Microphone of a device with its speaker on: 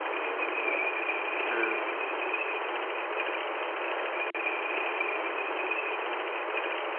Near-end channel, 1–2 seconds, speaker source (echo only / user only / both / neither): user only